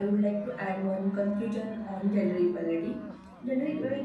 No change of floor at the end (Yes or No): Yes